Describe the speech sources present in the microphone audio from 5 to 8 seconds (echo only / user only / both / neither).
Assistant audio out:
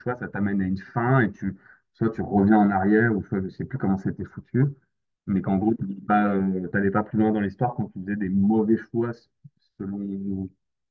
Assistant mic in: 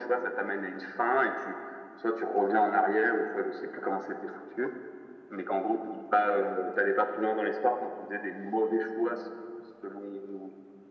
echo only